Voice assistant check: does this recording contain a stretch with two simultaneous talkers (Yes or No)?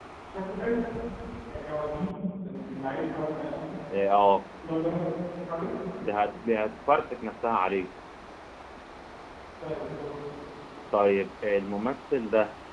No